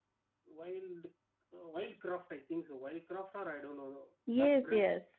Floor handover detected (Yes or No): Yes